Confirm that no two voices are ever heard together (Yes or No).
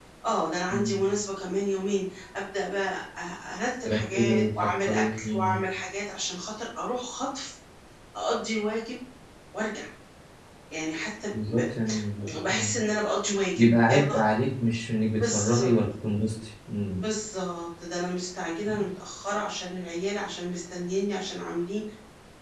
No